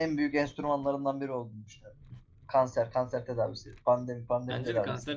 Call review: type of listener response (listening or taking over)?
taking over